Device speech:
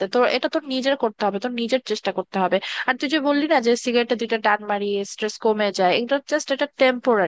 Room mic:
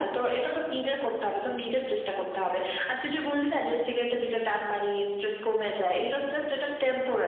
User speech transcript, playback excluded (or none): none